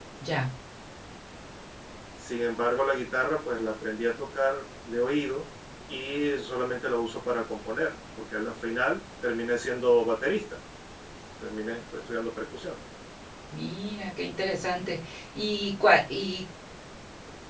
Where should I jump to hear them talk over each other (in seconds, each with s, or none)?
none